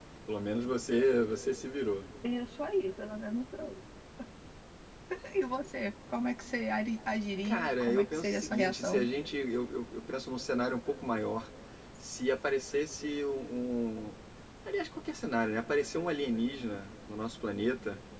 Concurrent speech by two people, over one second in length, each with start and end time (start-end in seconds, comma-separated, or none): 7.4-9.1